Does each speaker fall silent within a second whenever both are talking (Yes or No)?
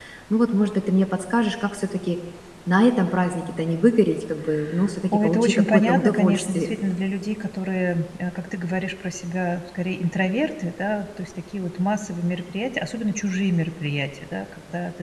No